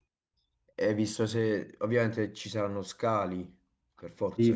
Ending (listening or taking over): taking over